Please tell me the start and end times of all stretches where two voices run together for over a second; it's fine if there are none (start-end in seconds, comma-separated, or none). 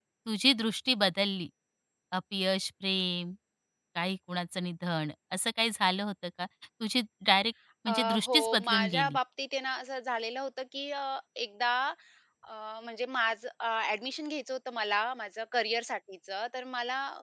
7.9-9.2